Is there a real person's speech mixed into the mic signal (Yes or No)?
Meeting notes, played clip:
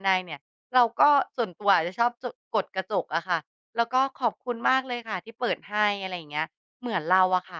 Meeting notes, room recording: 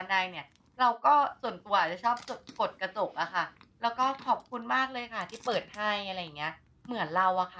No